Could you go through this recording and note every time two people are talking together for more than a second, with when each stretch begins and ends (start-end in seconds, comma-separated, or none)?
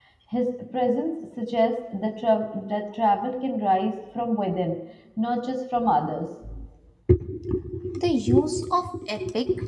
none